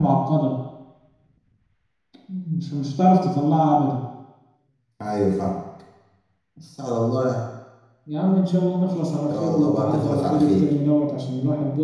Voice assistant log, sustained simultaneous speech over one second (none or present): present